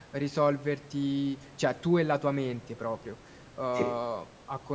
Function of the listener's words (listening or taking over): listening